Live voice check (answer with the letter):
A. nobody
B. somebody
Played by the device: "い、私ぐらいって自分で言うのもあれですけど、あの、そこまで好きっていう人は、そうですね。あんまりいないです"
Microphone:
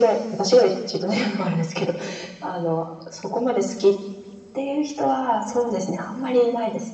A